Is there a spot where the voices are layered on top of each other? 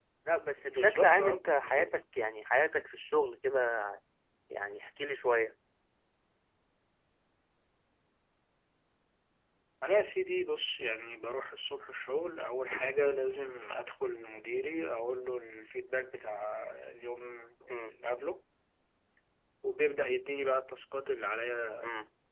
Yes, from 0.7 s

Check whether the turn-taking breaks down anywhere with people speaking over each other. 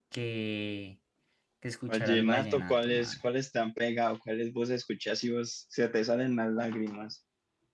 Yes, from 1.9 s

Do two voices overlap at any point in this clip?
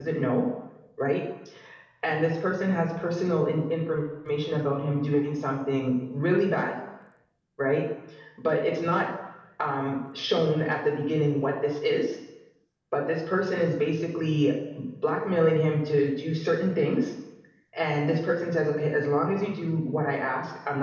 No

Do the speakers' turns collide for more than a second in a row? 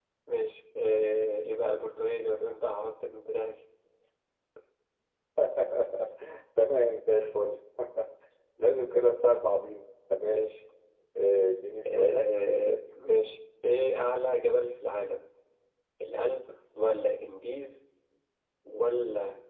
No

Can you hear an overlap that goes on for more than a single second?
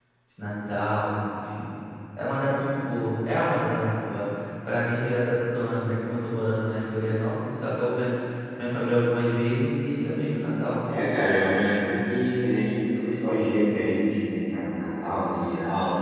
No

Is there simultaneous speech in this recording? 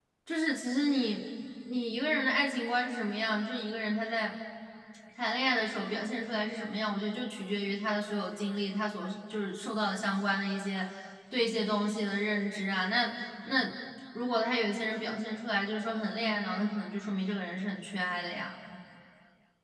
No

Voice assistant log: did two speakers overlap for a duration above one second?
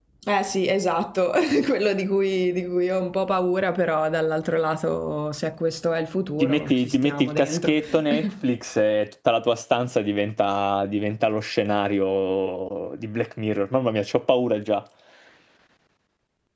Yes, from 6.4 s

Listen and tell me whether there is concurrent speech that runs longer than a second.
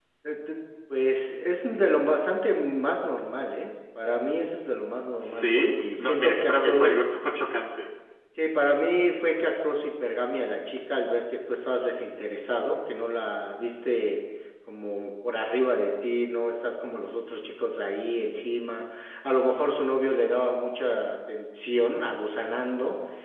Yes, from 5.2 s

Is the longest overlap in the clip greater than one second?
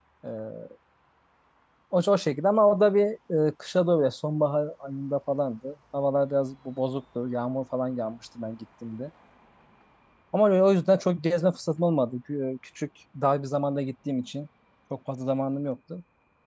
No

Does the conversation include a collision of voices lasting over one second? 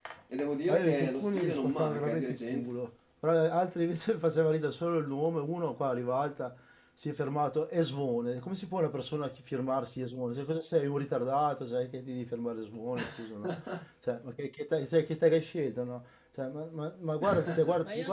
Yes, from 0.7 s

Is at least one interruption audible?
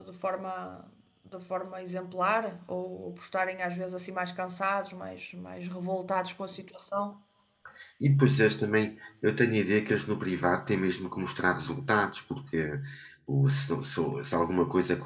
No

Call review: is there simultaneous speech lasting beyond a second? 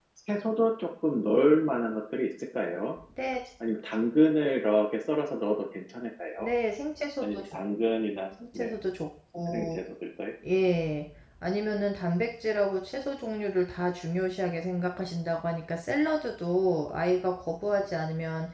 No

